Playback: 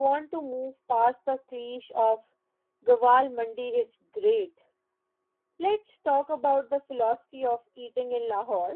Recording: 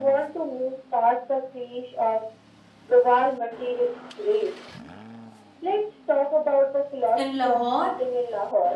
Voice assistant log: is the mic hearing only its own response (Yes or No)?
No